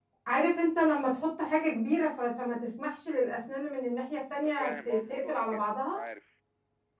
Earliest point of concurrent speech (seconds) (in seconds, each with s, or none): 4.3 s